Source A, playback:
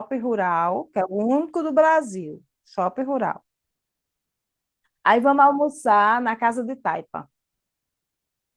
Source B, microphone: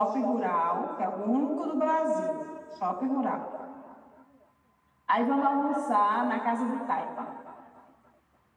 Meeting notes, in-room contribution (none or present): none